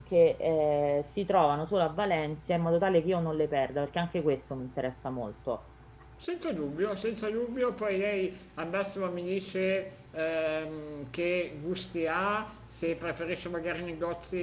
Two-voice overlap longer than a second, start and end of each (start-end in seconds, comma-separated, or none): none